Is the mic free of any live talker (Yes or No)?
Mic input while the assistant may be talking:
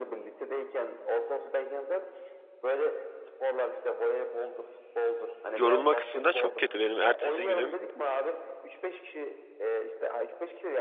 No